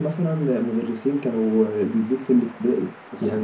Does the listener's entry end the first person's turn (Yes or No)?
Yes